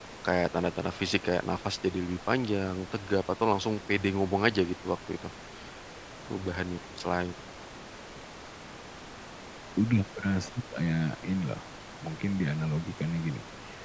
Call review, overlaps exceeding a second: none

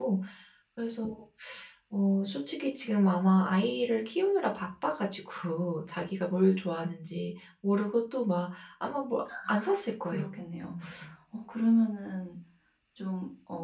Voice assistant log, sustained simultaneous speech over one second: none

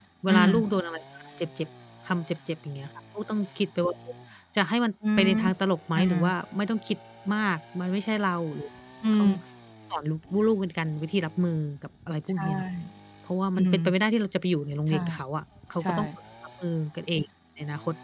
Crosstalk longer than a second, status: none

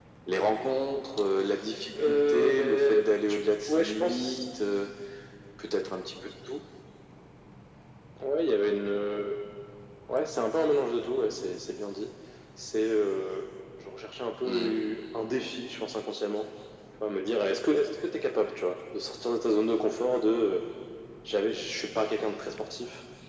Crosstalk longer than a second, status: present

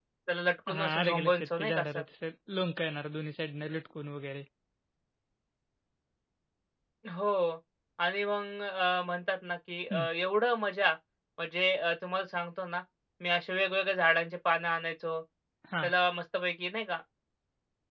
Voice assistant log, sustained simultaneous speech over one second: present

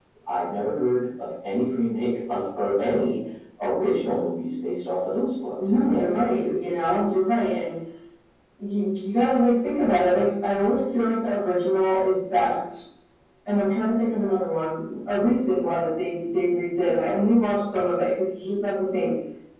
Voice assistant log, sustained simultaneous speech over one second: present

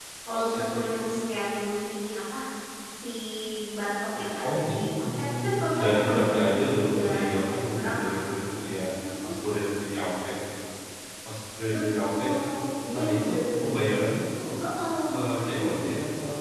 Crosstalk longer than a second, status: present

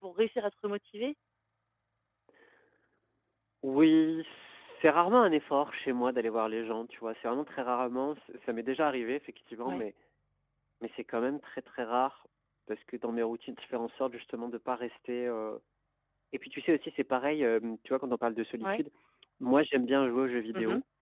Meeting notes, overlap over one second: none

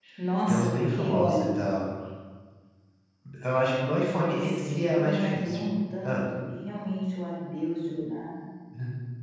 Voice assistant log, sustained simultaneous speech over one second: present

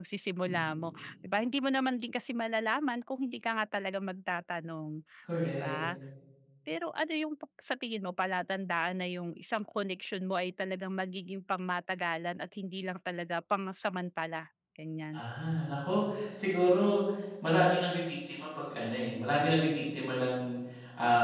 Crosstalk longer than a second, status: none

